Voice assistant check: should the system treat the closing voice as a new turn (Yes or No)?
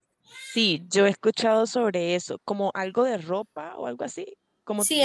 Yes